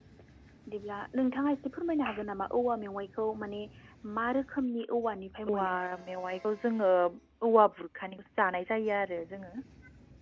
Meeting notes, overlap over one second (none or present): none